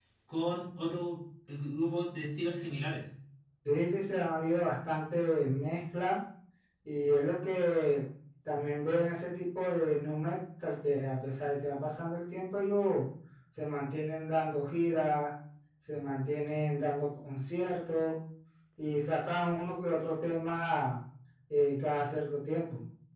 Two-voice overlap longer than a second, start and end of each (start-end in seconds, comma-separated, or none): none